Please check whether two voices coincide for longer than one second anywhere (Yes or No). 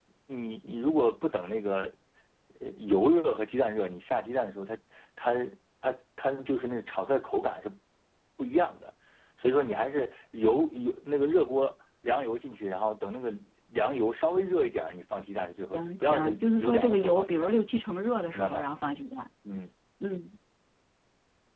Yes